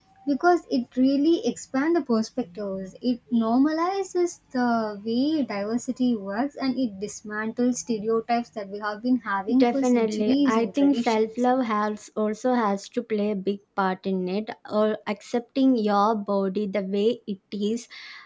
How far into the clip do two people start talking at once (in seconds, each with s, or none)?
9.5 s